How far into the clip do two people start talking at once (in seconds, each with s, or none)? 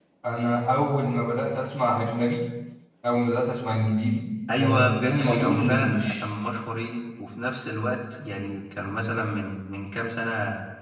4.5 s